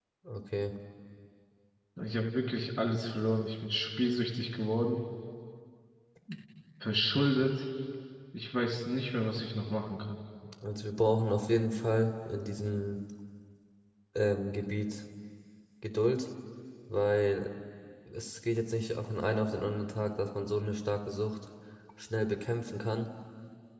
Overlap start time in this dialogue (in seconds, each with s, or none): none